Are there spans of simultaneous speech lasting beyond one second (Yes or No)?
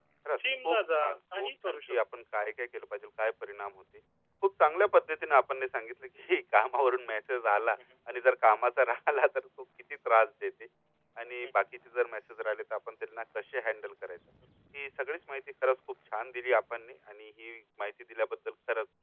Yes